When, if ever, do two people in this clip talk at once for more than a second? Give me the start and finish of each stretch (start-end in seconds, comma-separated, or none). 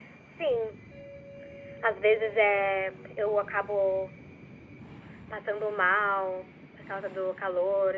none